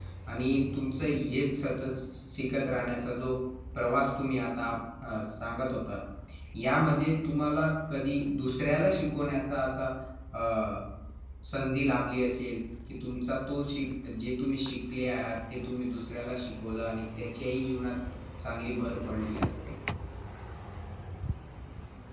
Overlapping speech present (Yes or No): No